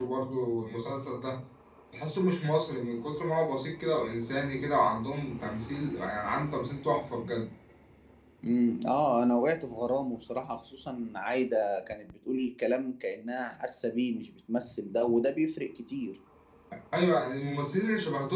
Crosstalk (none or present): none